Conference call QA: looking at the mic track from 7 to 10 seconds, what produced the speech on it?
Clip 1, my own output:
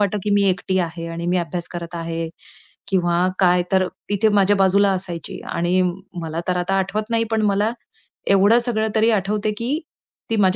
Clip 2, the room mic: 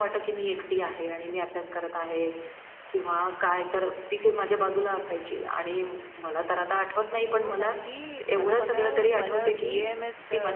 both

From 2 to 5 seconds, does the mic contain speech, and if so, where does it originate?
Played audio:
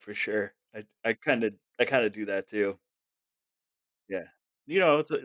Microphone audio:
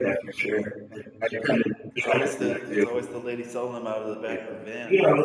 both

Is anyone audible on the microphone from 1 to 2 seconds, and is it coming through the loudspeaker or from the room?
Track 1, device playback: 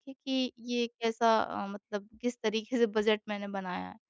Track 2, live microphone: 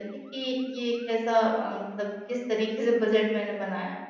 echo only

